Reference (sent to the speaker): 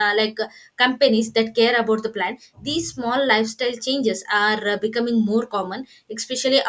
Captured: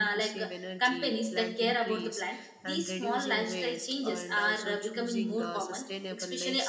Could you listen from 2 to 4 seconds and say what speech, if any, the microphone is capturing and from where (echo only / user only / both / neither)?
both